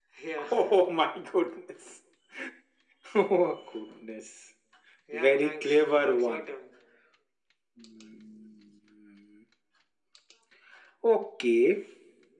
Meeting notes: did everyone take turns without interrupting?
No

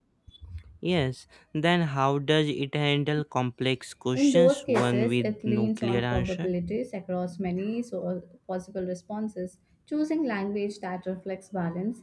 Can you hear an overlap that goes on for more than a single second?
Yes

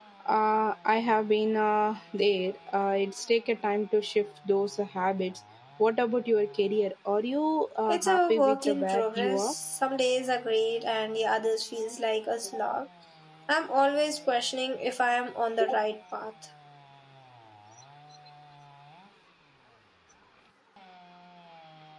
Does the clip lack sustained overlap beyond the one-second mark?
No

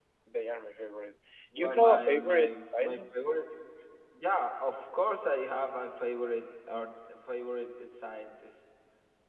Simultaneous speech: Yes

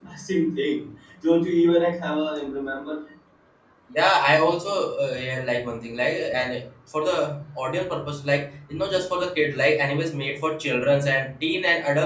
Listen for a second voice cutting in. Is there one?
No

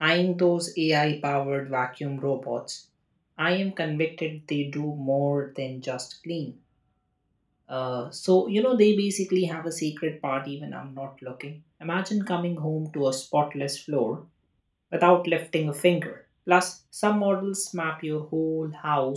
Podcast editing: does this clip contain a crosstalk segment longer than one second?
No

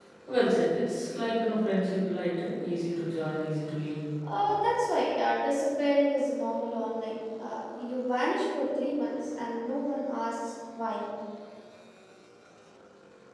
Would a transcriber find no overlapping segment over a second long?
Yes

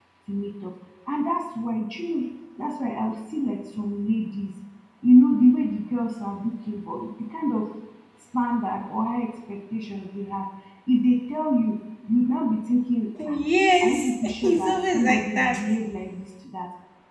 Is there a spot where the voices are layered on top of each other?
Yes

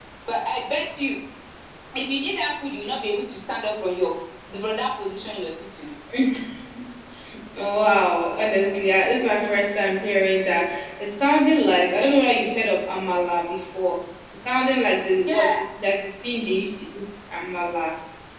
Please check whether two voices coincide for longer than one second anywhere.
No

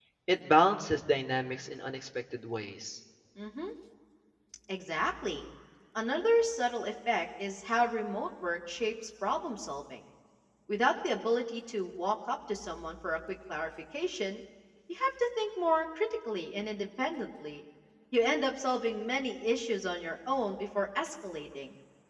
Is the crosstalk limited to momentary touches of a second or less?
Yes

